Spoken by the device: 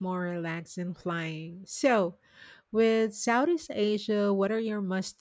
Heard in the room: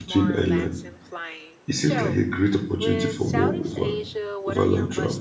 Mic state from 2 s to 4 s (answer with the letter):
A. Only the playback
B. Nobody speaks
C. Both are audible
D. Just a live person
C